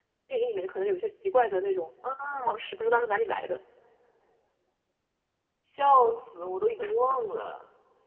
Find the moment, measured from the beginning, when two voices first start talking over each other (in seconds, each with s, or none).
none